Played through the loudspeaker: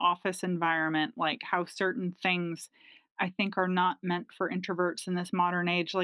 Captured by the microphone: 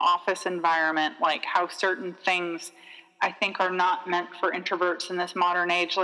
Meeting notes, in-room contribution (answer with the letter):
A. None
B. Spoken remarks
A